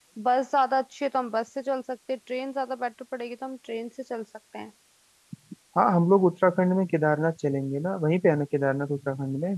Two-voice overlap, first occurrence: none

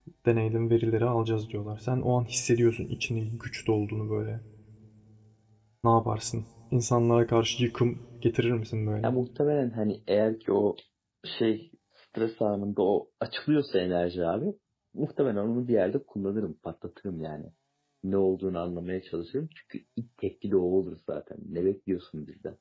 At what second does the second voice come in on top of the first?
none

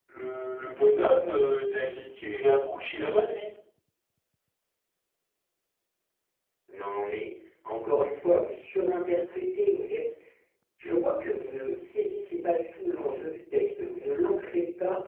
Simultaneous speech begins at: none

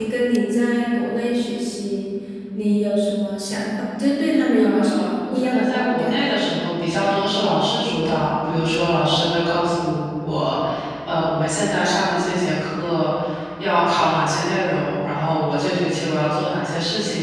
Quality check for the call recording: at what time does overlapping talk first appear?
5 s

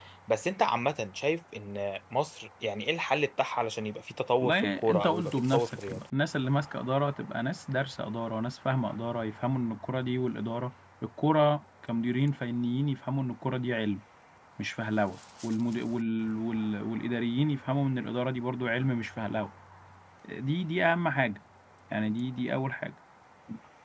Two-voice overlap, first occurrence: 4 s

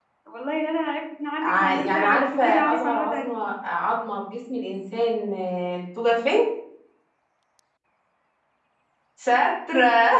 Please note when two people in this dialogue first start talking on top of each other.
1 s

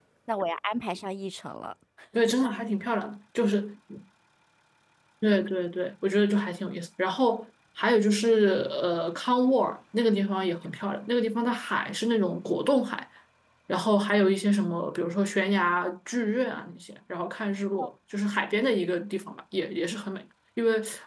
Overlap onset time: none

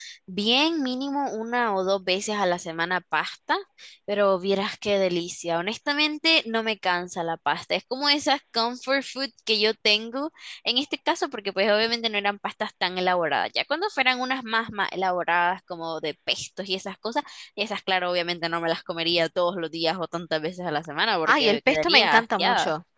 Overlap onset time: 21 s

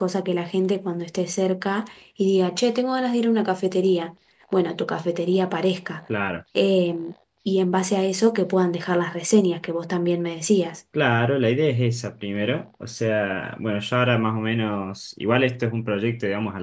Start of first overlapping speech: none

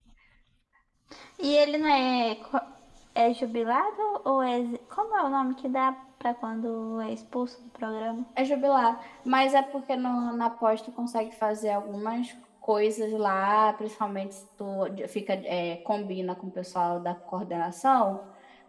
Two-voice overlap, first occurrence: none

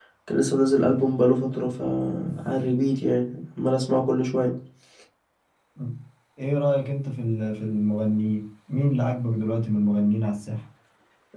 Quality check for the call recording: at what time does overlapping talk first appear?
none

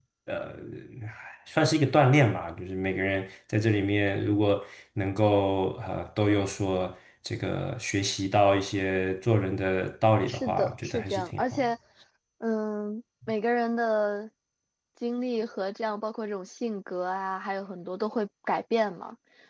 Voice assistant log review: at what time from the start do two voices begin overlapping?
10 s

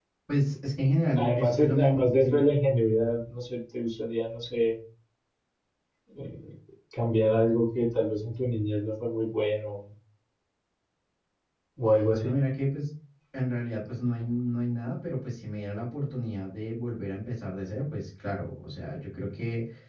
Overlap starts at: 1 s

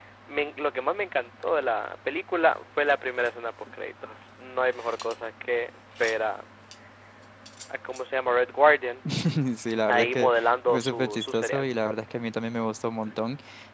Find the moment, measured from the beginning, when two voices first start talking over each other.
10 s

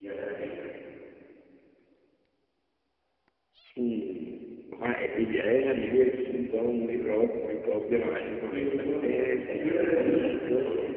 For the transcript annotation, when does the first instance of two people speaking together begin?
8 s

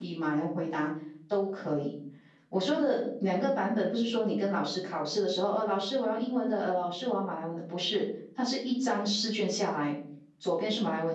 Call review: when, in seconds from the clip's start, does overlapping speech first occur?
none

